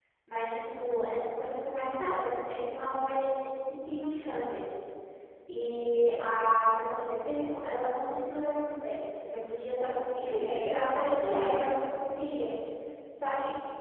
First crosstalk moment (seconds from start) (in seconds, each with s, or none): 10.2 s